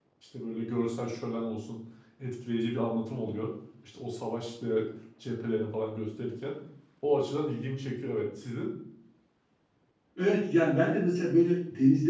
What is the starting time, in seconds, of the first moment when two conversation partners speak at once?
none

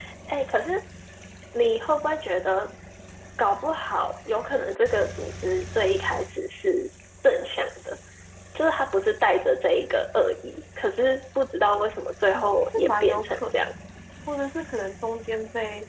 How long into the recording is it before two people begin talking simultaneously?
12.3 s

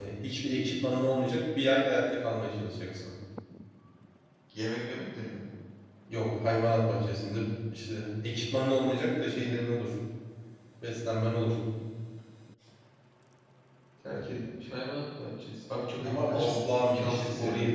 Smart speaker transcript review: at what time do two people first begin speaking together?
16.0 s

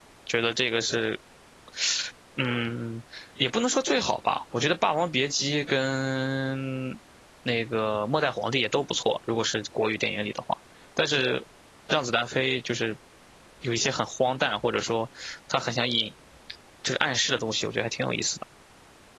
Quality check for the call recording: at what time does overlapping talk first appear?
none

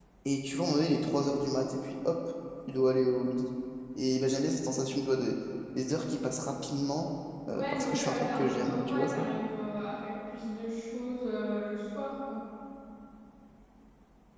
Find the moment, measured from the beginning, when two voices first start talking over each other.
7.5 s

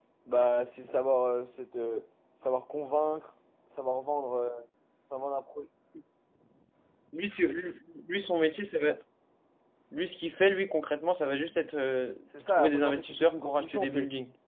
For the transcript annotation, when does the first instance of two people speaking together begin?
12.3 s

